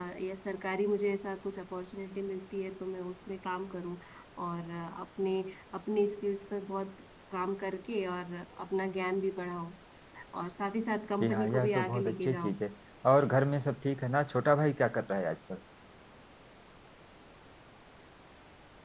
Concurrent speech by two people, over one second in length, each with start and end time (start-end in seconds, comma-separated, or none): 11.2-12.6